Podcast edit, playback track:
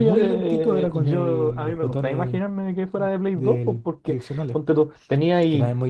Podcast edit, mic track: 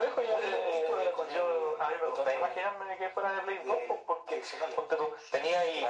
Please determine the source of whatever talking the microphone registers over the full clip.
echo only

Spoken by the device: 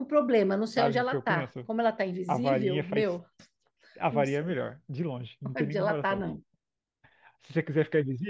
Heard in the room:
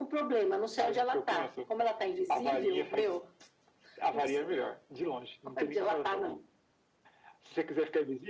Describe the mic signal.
echo only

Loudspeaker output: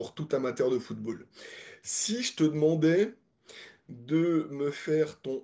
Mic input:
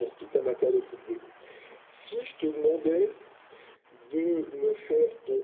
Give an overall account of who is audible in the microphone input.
echo only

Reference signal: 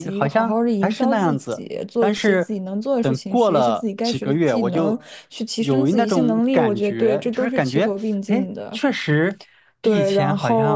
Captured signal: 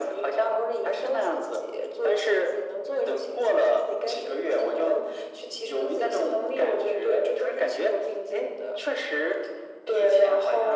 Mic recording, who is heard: echo only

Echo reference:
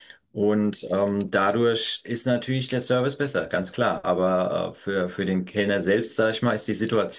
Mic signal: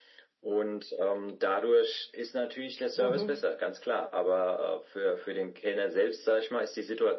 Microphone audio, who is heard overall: both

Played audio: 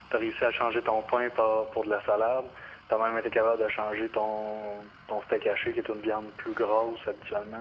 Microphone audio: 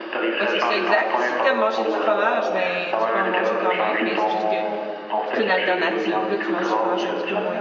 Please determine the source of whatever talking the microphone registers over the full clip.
both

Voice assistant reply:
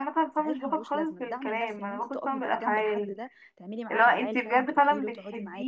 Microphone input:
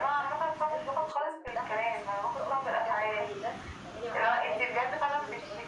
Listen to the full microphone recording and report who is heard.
echo only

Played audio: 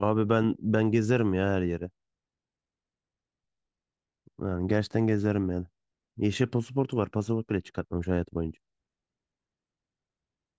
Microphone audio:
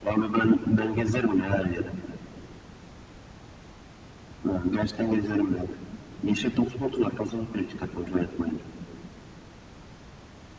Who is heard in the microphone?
echo only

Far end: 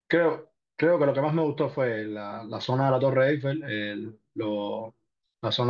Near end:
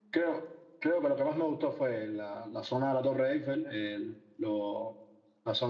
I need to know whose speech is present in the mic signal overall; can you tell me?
echo only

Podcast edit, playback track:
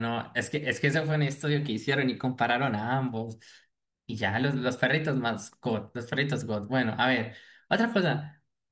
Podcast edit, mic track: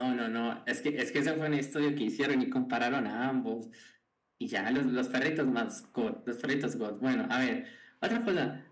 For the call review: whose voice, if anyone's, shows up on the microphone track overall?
echo only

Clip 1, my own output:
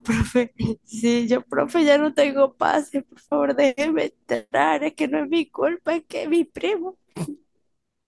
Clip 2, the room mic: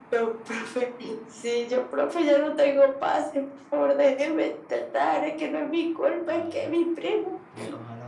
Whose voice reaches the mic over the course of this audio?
both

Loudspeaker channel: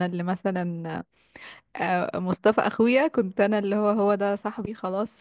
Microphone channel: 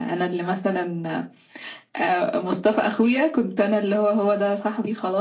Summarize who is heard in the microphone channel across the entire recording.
echo only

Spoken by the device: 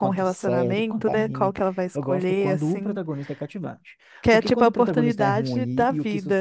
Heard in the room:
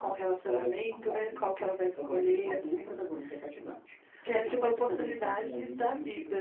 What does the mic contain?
echo only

